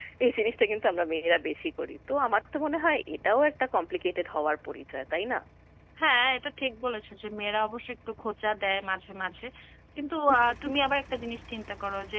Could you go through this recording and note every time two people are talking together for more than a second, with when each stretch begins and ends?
none

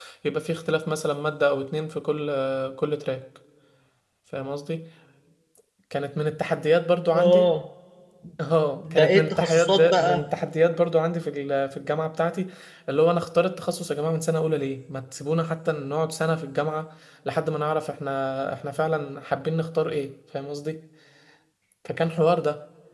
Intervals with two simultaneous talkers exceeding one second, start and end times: 8.9-10.3

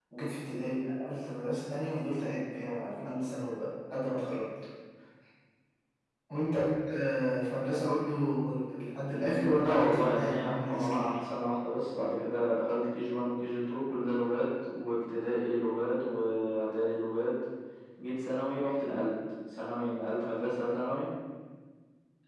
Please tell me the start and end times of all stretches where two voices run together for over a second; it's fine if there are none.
9.1-11.1

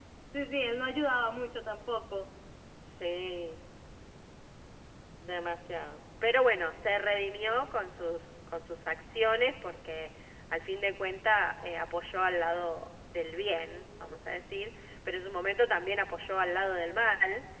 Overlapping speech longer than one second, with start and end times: none

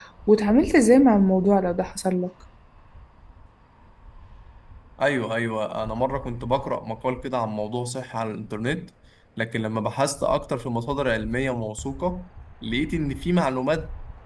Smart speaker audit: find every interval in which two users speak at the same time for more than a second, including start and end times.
none

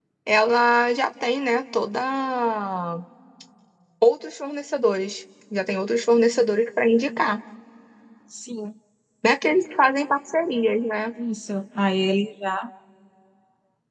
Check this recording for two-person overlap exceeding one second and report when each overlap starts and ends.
none

